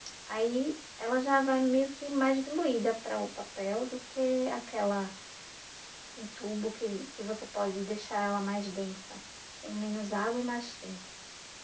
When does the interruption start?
none

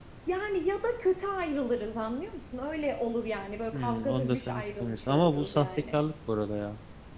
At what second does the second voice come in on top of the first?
3.7 s

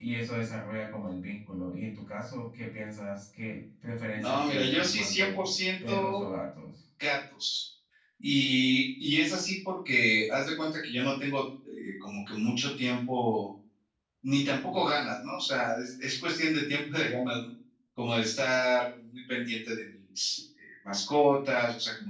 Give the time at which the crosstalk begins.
4.2 s

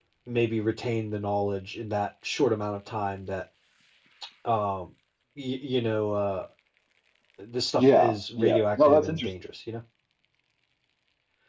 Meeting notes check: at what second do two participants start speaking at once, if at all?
7.7 s

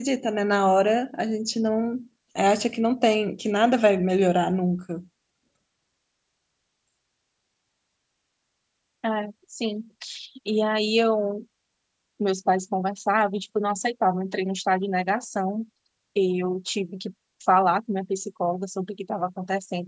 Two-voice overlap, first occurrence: none

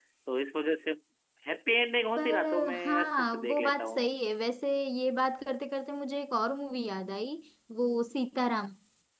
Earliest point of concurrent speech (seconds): 2.2 s

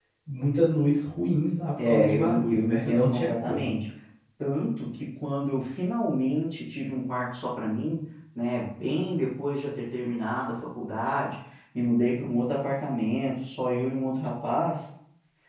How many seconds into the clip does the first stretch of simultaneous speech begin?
1.8 s

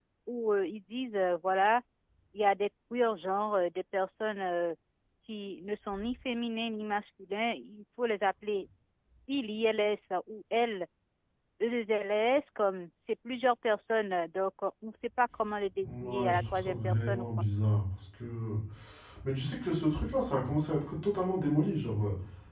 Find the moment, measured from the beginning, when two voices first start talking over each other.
15.8 s

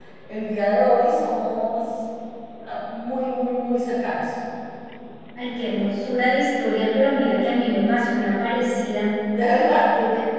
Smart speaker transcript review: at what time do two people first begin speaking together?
none

